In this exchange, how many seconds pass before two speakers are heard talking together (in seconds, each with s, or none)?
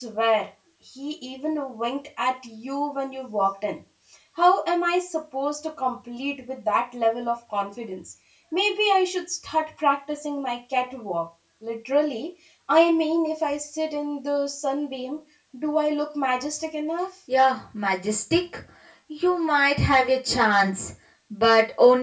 none